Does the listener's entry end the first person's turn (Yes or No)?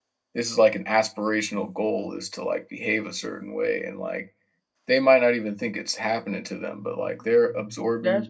Yes